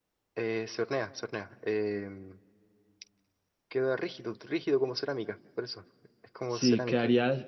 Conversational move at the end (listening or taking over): taking over